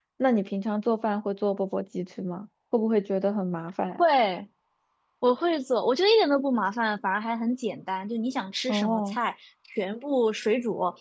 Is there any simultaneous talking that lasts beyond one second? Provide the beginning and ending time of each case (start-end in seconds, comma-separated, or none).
none